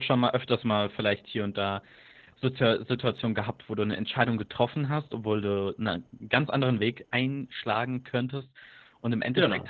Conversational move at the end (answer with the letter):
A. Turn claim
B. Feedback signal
B